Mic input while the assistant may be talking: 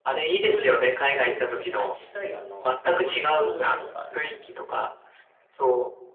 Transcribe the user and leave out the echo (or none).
オレゴンってあれですよね。西海岸のカリフォルニアの上とかですよね。